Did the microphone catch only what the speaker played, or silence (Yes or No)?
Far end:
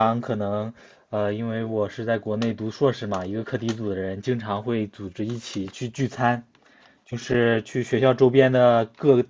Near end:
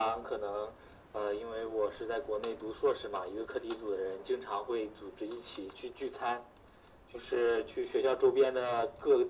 Yes